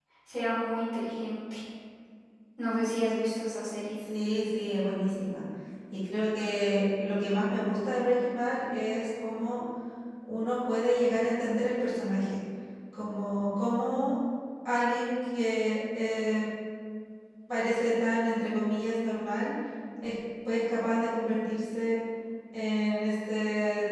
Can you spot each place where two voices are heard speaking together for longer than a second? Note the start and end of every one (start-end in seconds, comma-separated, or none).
none